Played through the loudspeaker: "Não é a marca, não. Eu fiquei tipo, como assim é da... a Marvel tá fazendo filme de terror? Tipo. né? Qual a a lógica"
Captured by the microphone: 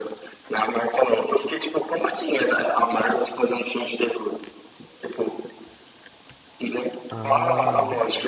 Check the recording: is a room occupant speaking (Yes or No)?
Yes